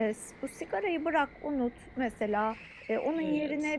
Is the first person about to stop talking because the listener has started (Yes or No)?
No